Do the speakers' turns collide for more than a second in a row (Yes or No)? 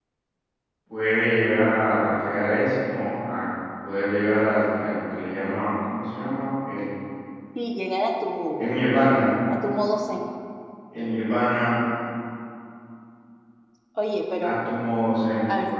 No